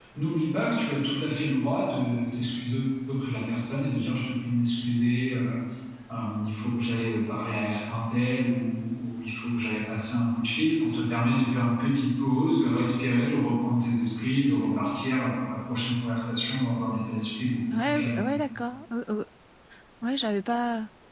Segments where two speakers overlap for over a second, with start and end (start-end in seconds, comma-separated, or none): none